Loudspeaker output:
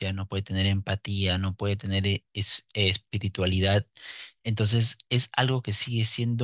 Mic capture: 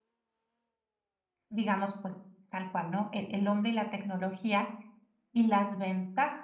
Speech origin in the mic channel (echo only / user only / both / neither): user only